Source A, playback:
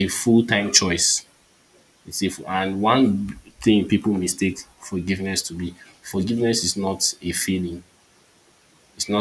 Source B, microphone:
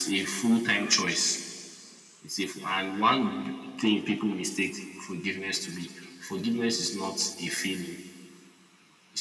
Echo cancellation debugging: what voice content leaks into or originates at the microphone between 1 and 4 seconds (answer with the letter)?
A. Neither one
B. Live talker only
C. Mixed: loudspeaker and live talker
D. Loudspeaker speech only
D